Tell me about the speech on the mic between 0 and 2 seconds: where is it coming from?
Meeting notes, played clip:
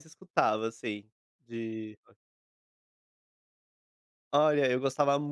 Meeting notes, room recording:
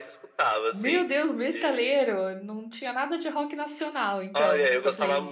both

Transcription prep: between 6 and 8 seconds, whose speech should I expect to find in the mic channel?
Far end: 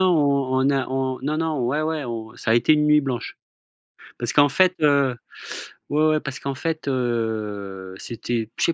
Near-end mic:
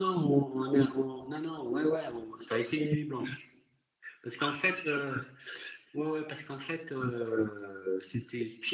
echo only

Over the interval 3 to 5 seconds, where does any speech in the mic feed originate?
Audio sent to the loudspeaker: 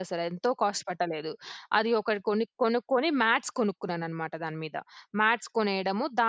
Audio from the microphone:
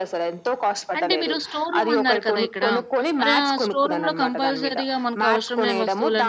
both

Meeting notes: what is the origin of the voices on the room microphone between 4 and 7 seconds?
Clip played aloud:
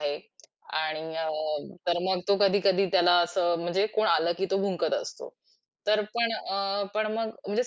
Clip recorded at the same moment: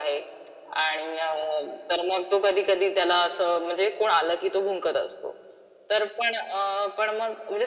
echo only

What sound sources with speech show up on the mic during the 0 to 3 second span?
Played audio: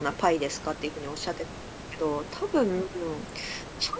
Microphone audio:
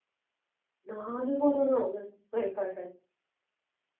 user only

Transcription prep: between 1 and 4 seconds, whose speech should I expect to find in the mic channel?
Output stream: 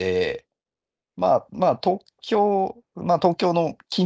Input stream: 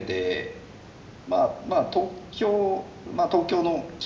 echo only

